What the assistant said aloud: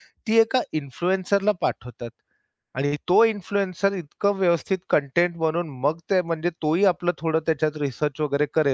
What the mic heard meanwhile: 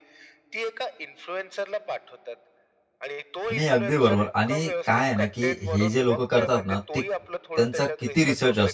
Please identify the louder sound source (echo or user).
user